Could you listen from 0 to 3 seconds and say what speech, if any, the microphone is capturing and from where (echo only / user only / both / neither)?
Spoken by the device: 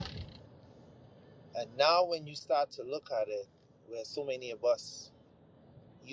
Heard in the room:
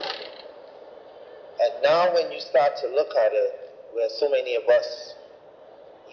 echo only